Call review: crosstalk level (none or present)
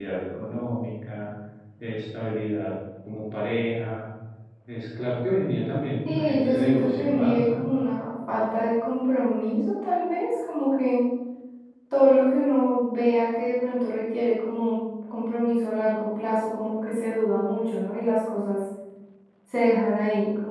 present